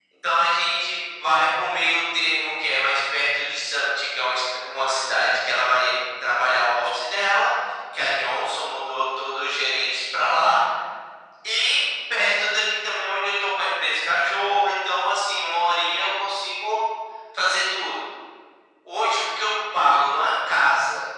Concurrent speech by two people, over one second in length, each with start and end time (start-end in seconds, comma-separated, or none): none